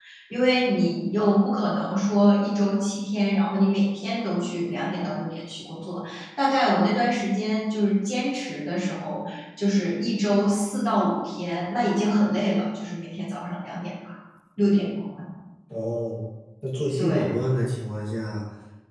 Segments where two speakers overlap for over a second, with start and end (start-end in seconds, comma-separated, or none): none